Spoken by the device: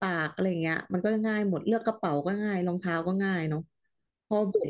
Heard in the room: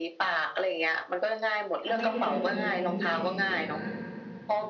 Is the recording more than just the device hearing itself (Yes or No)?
Yes